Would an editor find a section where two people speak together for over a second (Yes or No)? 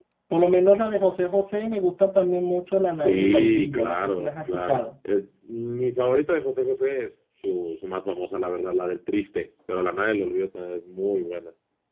Yes